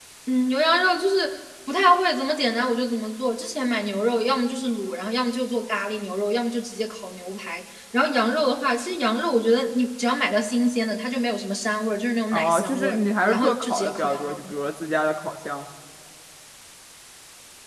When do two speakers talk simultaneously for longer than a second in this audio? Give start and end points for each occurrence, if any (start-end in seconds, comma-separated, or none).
12.3-14.4